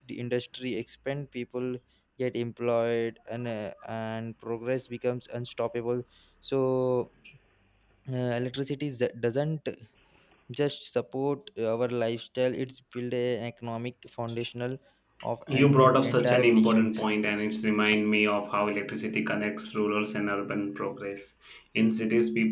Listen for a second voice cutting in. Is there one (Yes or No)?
Yes